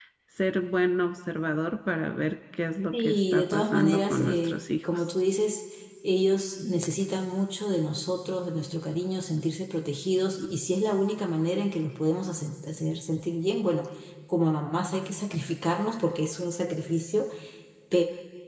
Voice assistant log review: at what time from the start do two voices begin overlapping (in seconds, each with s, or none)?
2.9 s